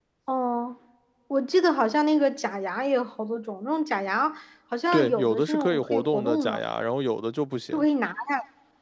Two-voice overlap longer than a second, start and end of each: 4.9-6.6

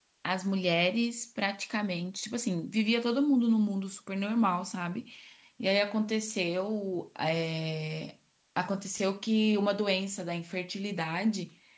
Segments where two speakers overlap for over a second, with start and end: none

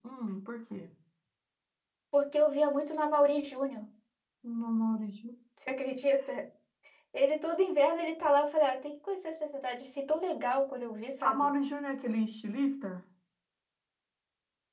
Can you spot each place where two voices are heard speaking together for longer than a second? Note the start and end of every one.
none

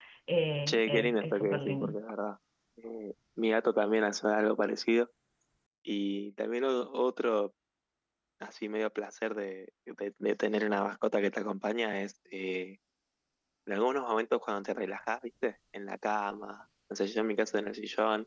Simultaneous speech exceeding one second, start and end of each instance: 0.7-2.0

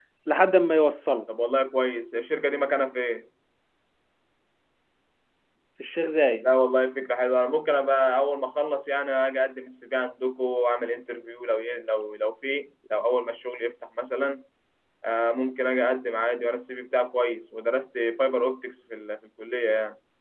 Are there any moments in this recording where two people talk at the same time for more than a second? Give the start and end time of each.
none

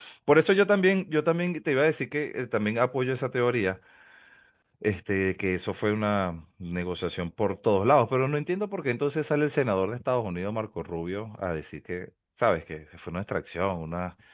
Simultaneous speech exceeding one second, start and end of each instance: none

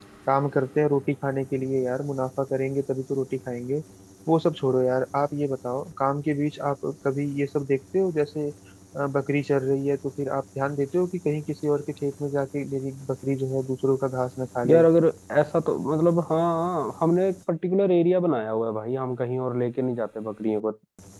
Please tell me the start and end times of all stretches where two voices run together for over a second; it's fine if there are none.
none

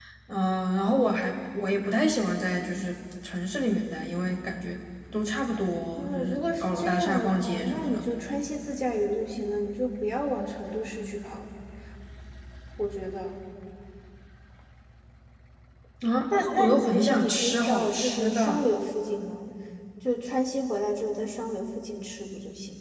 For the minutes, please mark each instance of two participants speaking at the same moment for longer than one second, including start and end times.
6.0-8.1, 16.3-18.4

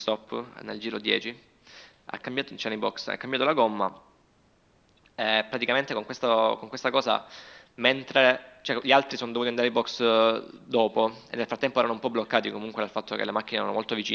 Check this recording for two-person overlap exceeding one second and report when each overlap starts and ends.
none

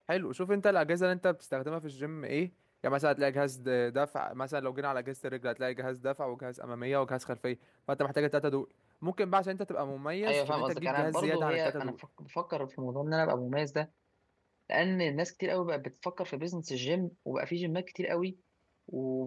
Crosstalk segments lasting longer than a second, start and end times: 10.3-12.0

